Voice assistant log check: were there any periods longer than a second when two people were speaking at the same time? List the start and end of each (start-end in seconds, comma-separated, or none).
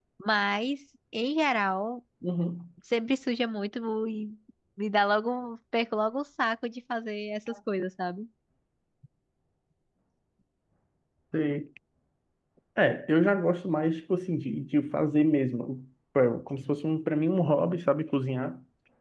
none